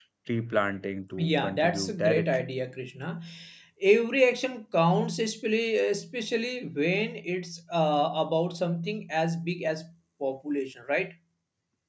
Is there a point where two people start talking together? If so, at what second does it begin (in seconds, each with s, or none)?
1.2 s